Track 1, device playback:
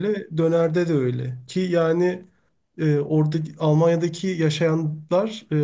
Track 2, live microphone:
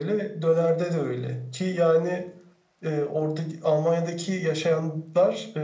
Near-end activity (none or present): none